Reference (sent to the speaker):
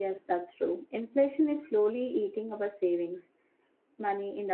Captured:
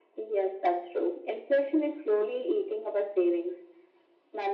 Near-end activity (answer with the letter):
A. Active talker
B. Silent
B